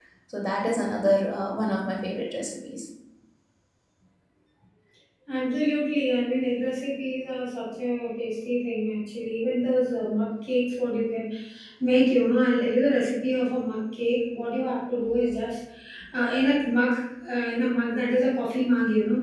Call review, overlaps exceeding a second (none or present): none